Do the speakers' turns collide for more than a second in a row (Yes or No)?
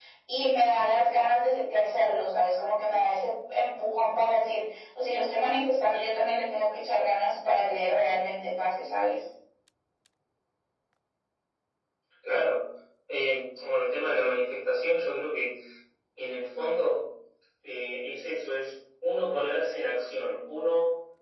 No